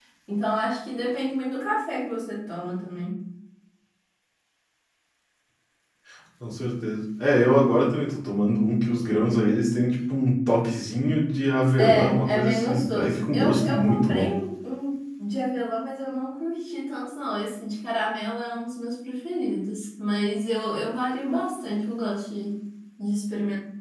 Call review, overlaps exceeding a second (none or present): present